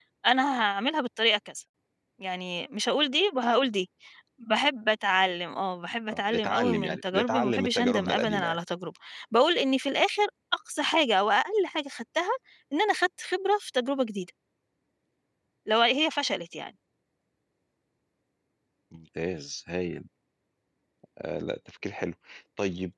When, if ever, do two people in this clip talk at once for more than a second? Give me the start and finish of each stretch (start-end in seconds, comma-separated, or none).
6.1-8.6